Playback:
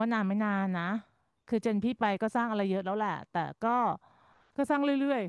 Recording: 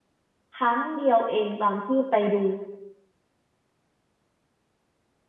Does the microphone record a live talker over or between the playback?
Yes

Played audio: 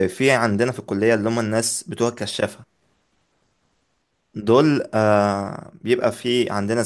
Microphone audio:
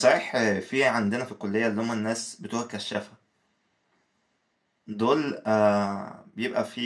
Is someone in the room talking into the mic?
No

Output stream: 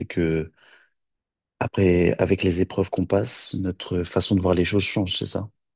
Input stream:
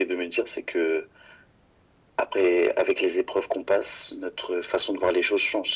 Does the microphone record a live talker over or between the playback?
No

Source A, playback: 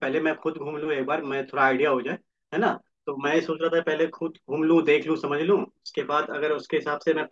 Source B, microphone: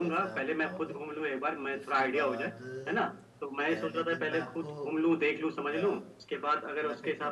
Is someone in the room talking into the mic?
Yes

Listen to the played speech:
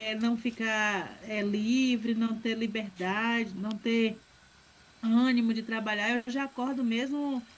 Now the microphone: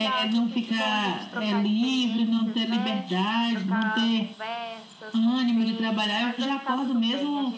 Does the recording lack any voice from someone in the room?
No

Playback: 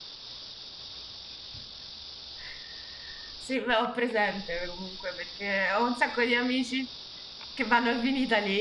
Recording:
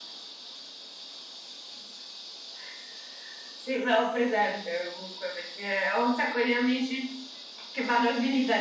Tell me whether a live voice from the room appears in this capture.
No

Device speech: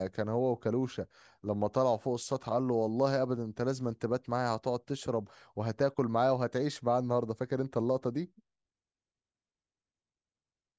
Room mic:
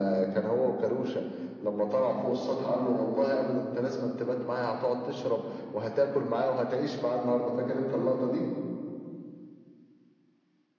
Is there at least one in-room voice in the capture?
No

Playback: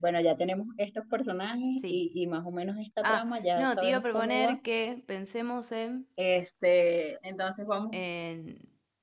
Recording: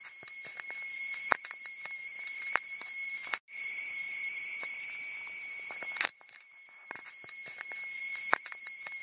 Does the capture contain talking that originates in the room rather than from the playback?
No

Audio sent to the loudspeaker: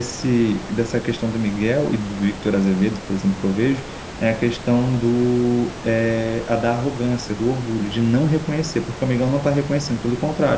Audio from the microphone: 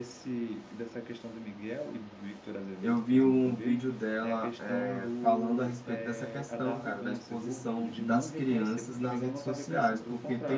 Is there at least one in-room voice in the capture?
Yes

